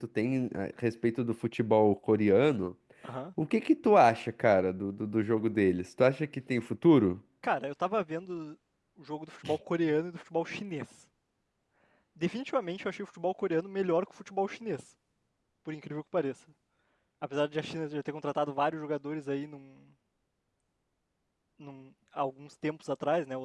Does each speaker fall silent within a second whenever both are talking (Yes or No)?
Yes